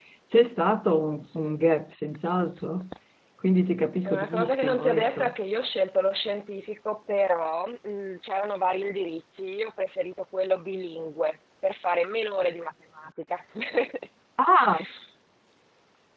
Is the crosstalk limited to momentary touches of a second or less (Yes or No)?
No